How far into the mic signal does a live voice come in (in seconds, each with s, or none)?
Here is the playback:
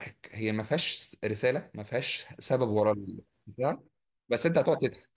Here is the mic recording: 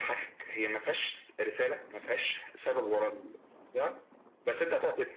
none